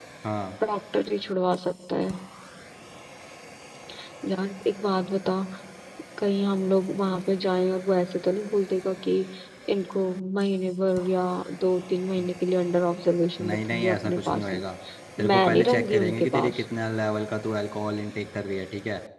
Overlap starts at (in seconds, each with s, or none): 13.4 s